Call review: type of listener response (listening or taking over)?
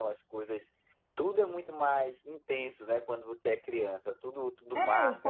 taking over